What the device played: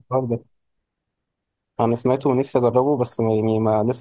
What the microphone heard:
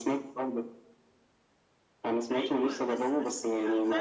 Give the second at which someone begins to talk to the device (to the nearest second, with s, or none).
2 s